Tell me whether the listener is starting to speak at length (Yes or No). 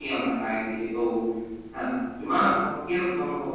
No